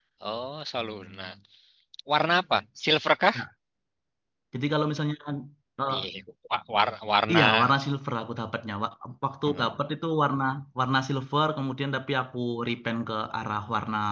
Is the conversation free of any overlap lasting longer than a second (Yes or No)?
Yes